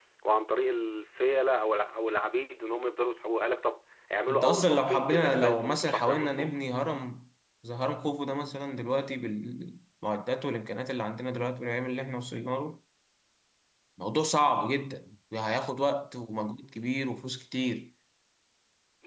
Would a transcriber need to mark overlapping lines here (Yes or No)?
Yes